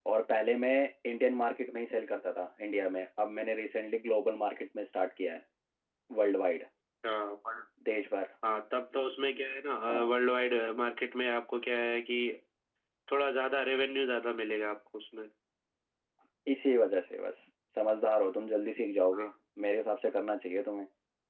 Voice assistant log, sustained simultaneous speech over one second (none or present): none